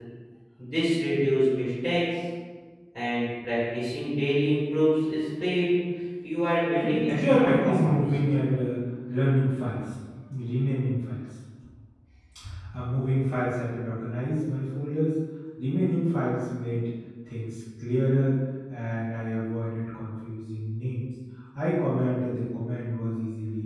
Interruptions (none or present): present